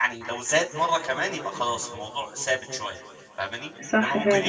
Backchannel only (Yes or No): Yes